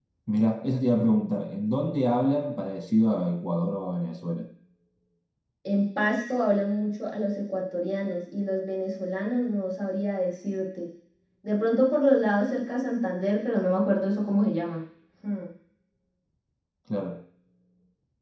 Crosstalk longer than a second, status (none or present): none